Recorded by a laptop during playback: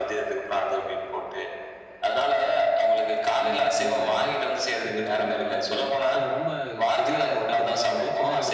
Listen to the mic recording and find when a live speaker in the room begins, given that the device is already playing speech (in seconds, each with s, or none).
3.5 s